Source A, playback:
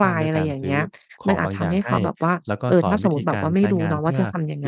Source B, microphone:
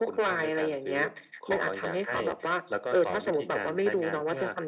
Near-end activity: none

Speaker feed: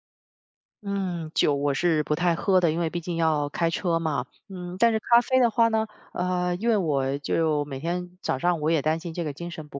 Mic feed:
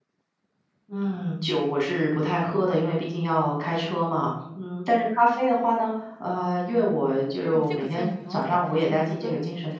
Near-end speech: present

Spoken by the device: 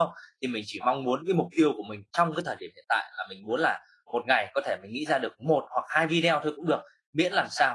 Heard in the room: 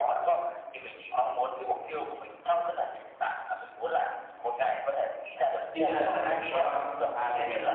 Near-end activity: present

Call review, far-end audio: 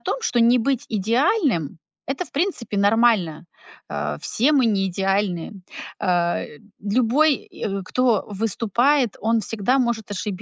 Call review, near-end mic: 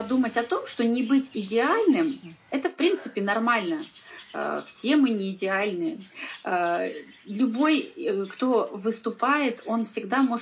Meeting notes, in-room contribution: present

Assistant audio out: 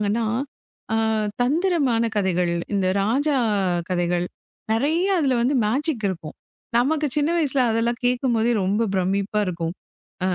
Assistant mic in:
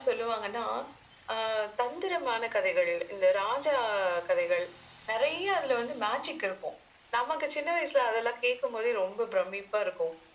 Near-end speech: none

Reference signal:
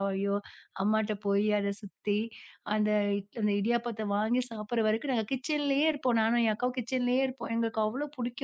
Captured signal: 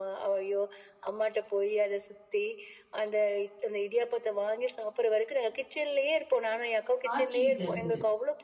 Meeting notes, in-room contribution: present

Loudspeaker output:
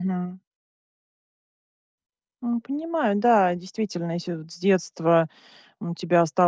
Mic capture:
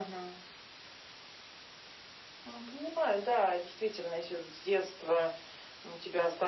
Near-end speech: none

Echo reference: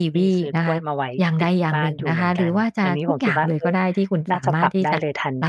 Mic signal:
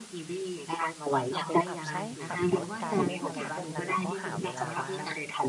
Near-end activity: present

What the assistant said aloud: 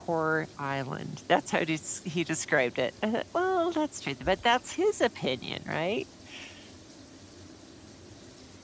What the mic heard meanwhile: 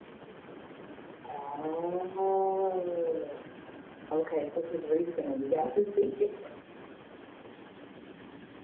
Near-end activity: present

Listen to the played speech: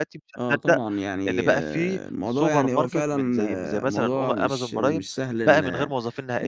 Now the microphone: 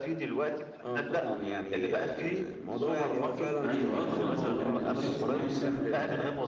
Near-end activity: present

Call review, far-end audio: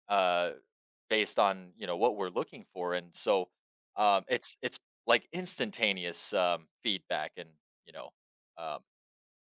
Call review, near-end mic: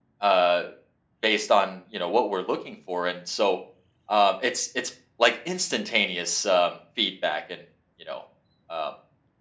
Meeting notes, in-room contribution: none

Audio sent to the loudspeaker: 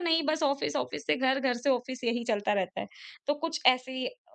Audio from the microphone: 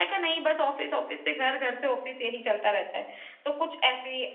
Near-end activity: none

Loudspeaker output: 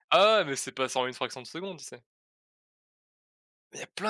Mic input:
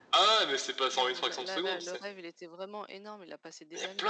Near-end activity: present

